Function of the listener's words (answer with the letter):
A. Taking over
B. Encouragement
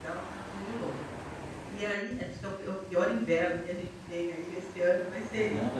A